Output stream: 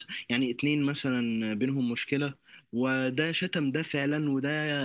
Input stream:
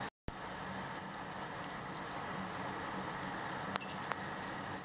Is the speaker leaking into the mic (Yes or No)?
No